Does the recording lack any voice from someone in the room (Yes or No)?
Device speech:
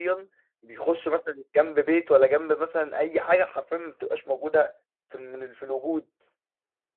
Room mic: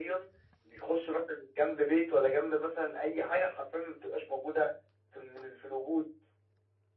Yes